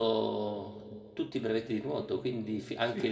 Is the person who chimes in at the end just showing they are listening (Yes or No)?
No